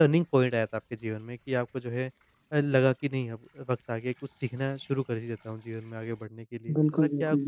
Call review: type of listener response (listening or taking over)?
taking over